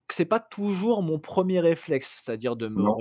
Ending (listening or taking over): listening